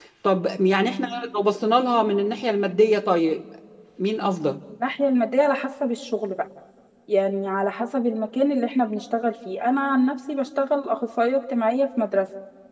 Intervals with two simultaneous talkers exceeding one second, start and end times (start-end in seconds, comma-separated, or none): none